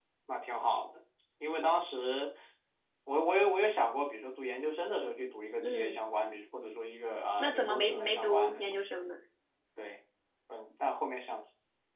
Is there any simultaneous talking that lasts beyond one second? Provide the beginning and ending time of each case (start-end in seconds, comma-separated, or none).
7.4-8.6